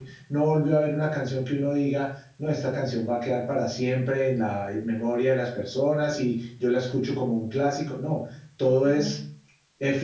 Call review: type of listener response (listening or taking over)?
listening